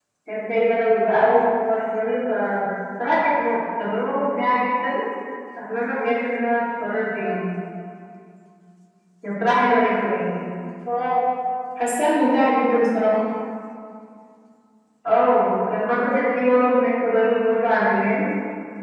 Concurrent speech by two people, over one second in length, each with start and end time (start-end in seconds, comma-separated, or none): none